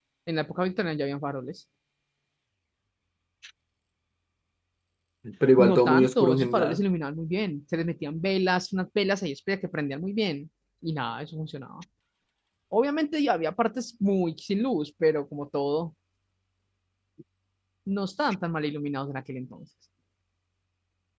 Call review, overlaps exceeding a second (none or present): present